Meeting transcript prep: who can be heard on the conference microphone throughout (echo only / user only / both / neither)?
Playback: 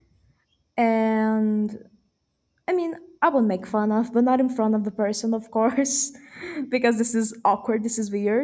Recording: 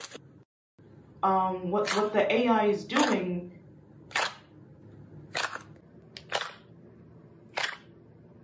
user only